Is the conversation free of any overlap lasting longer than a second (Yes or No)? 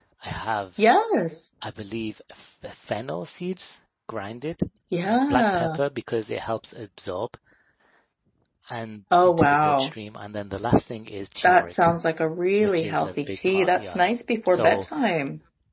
No